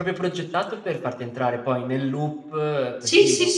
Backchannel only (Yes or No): No